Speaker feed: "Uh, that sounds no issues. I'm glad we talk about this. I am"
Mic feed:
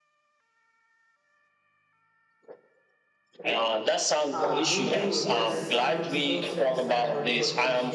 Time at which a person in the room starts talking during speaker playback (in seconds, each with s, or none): 4.3 s